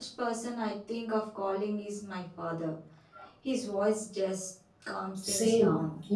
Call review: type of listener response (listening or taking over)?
taking over